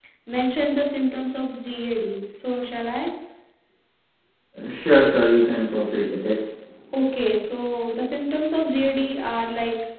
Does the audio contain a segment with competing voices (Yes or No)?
No